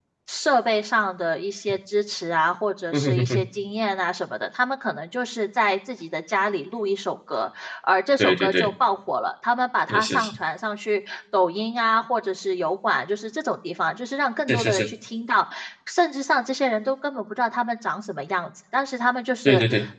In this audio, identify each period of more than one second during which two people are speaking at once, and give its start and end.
none

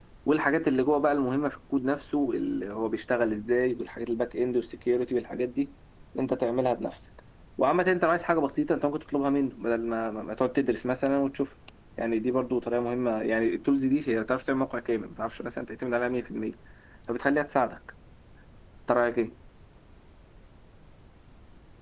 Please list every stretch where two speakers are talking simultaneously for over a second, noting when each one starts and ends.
none

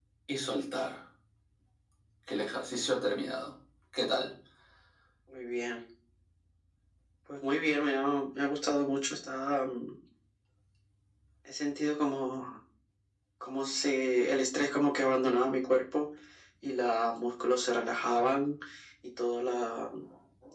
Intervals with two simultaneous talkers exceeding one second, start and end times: none

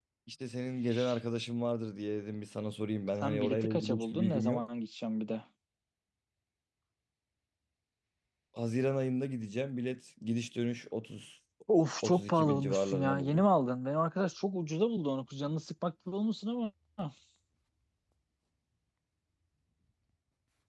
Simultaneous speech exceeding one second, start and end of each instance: 3.2-4.6, 12.0-13.4

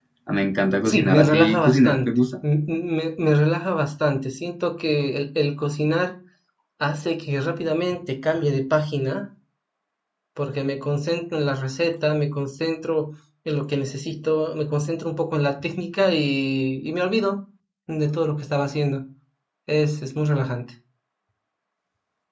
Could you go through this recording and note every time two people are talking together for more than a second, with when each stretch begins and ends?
0.8-2.1

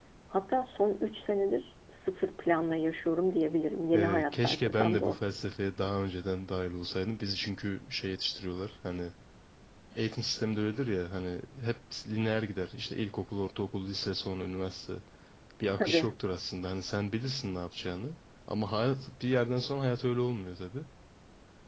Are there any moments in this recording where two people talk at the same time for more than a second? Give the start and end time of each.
4.0-5.2

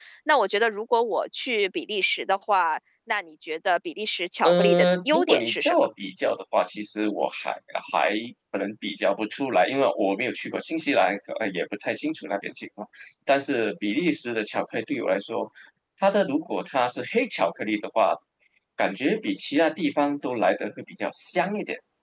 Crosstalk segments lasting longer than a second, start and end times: 4.4-5.7

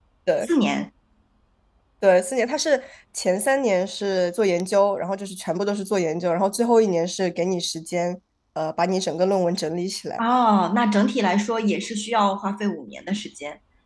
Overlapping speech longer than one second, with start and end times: none

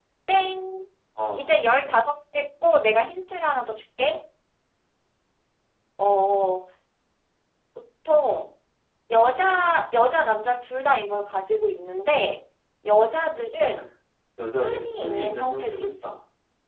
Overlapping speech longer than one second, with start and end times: 14.6-16.1

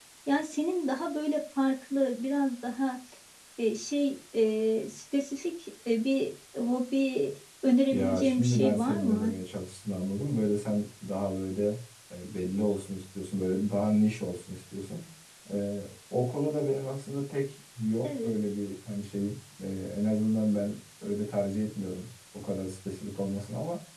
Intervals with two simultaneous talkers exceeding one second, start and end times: 7.9-9.3

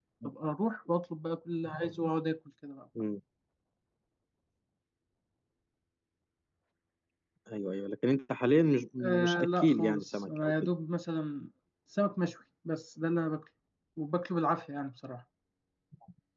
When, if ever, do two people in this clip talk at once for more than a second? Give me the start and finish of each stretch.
9.2-10.5

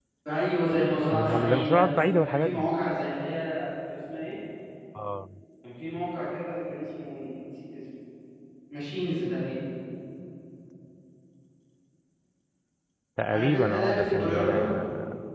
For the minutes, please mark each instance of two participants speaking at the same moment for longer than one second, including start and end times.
1.1-2.7, 13.3-14.7

